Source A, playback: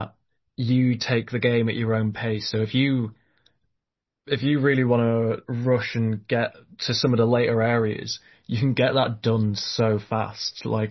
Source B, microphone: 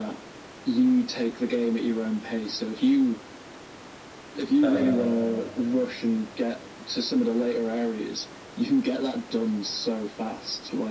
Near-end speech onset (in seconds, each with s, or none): 4.6 s